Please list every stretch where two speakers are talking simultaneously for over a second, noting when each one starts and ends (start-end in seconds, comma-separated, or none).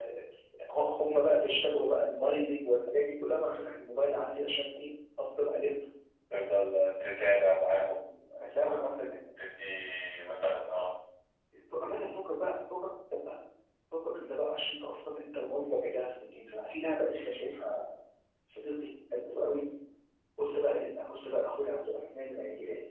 none